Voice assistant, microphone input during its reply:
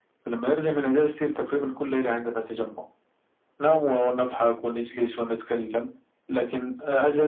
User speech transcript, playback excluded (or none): none